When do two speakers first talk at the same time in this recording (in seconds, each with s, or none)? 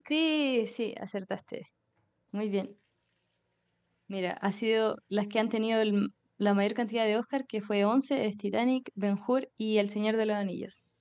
none